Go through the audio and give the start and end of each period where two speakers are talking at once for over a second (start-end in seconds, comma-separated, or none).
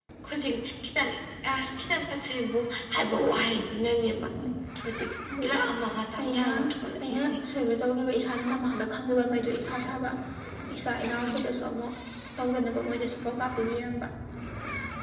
none